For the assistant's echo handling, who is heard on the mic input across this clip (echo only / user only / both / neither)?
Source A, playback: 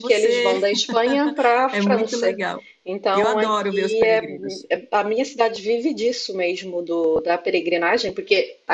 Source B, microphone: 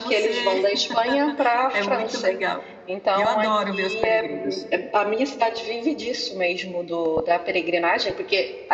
echo only